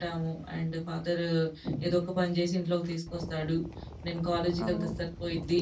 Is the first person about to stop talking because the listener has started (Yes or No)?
No